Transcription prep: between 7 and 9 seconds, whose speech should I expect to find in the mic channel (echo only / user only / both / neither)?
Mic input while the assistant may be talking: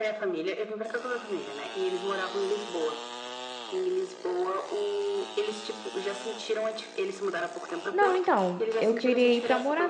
both